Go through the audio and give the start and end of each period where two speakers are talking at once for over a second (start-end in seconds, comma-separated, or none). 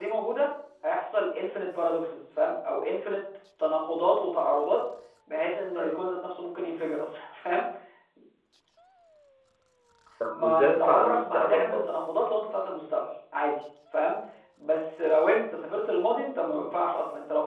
10.3-11.9